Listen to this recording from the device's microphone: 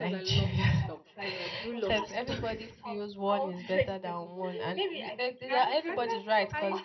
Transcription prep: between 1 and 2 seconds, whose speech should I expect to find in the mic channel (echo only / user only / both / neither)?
both